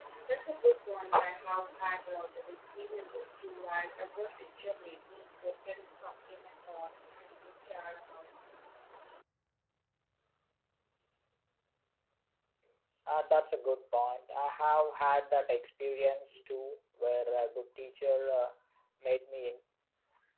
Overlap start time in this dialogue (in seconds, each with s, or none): none